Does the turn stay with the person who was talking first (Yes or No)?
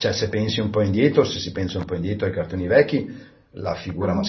Yes